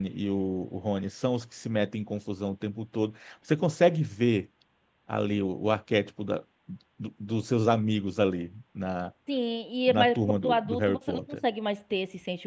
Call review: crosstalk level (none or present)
present